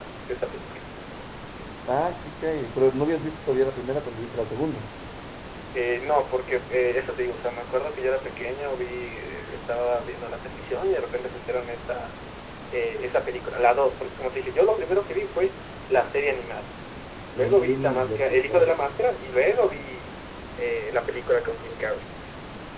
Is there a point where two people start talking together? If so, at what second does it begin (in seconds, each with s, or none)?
17.4 s